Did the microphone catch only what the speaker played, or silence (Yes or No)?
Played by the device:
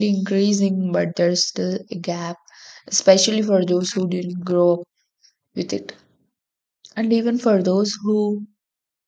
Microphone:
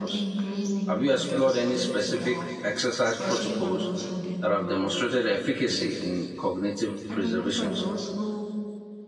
No